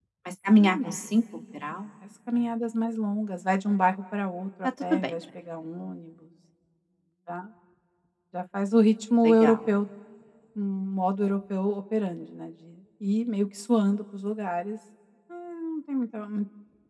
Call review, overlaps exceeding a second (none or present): none